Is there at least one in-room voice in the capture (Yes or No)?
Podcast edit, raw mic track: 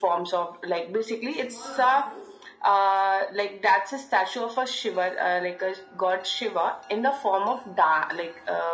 Yes